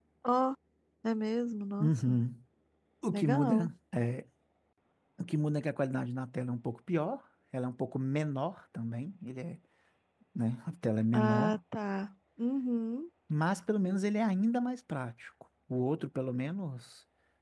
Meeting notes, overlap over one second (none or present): none